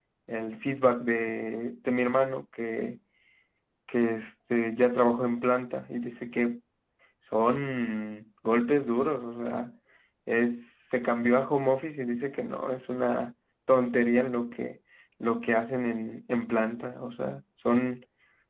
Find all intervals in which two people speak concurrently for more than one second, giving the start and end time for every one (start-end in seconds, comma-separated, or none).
none